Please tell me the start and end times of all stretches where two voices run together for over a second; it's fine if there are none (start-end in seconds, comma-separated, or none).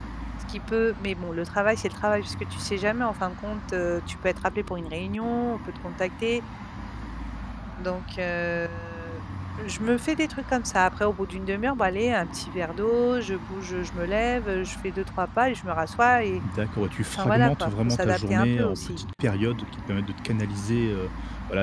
17.2-19.0